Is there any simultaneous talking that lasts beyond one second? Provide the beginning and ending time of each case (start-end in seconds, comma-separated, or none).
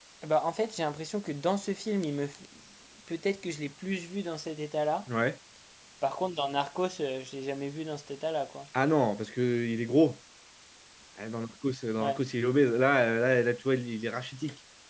none